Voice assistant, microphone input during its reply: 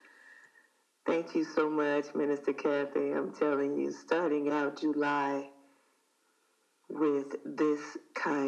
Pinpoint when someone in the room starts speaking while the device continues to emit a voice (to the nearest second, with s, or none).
none